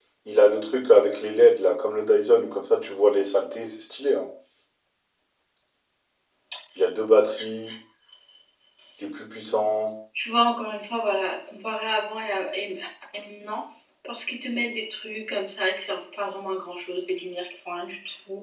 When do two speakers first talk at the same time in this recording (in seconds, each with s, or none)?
none